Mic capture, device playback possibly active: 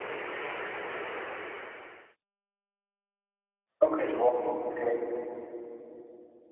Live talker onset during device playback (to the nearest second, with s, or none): 4 s